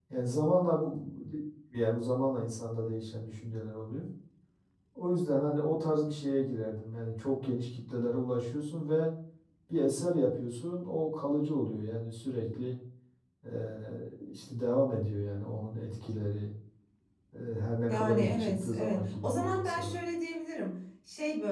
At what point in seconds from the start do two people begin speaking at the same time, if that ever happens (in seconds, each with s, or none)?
17.9 s